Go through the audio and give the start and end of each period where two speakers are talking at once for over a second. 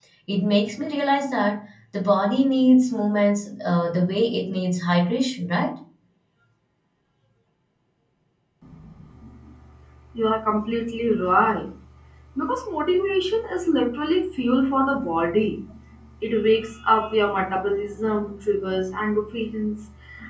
none

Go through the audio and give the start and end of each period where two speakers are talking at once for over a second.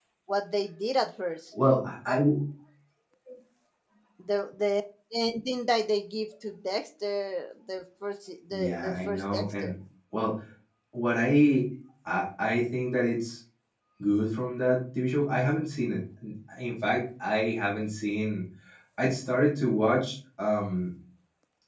8.5-9.7

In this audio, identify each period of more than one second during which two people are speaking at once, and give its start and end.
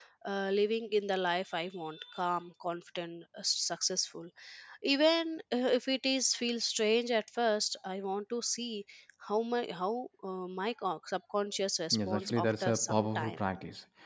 11.9-13.4

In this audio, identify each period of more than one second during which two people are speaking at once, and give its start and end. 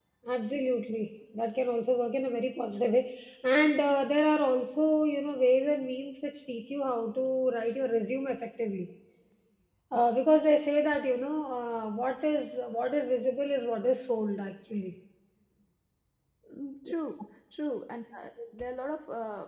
none

